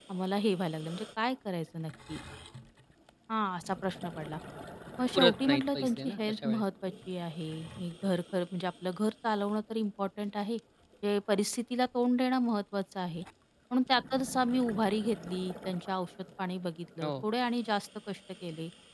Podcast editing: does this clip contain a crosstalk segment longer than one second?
Yes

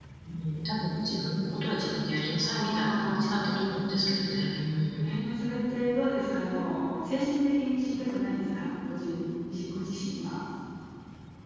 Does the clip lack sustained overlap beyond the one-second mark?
No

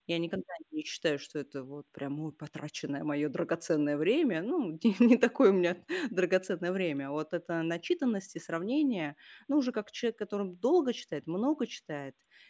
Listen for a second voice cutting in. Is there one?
No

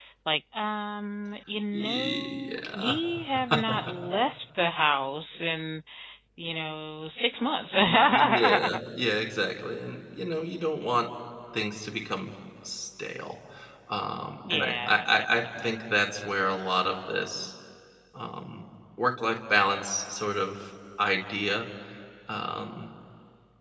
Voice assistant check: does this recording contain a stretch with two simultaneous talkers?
Yes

